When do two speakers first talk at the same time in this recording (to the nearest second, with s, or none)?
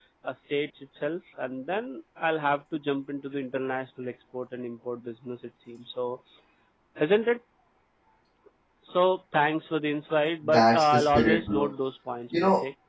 10 s